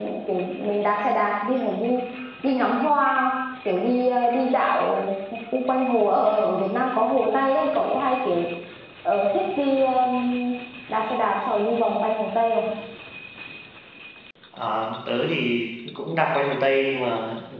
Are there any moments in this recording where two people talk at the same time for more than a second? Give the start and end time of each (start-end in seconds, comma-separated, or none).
none